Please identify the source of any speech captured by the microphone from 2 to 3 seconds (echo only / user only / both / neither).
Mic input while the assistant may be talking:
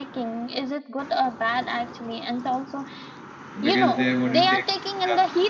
echo only